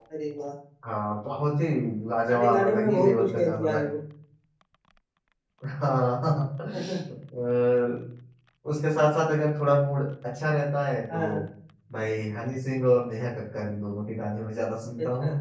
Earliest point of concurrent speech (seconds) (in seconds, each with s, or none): 2.3 s